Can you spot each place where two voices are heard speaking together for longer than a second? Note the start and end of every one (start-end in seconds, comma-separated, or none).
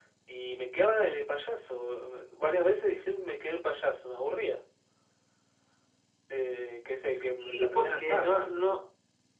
7.2-8.5